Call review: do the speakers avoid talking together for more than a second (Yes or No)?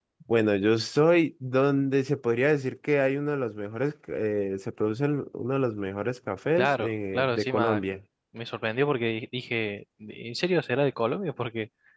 No